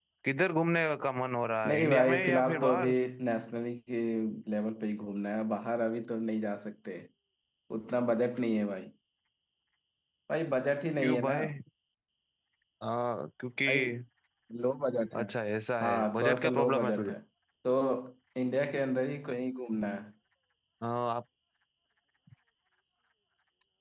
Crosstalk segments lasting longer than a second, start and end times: 1.7-2.9, 15.8-17.1

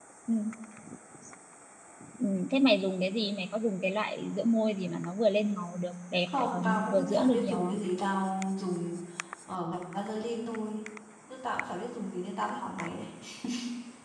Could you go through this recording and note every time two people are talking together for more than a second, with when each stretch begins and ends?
6.4-7.8

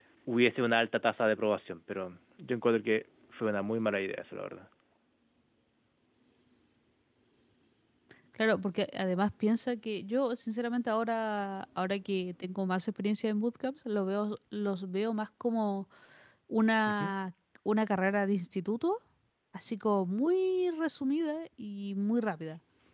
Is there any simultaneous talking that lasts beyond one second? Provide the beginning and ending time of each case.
none

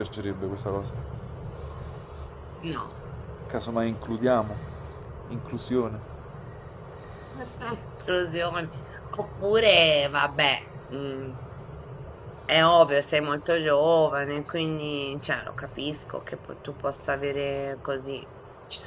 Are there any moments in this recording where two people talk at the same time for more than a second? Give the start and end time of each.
none

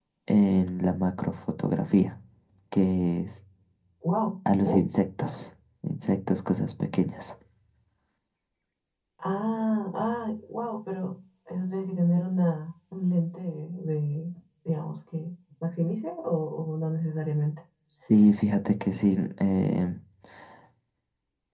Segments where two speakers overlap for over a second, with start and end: none

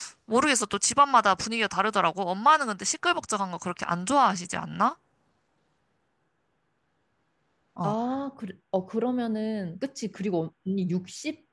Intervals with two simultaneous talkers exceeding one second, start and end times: none

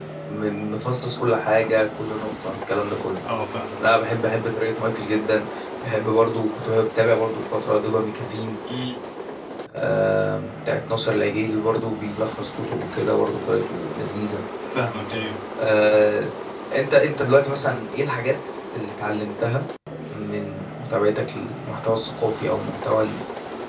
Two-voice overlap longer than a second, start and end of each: none

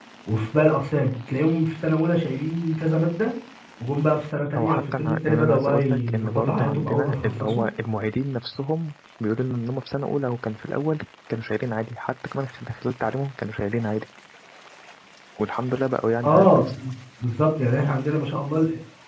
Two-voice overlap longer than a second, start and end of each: 4.6-7.6

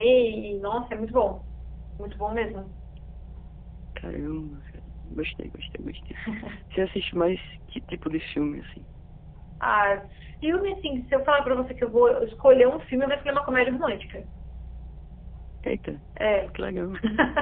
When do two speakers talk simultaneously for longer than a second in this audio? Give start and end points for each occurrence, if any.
none

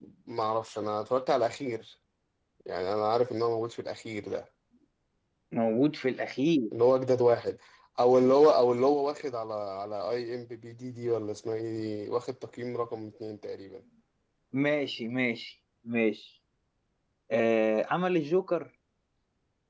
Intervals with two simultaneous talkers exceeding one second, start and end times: none

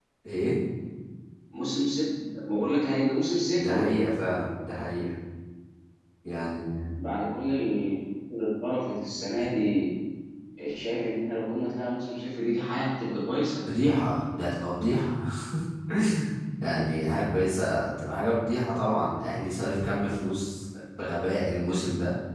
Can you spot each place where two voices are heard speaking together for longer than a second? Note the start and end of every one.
none

